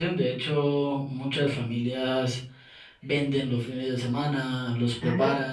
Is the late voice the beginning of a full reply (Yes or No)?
No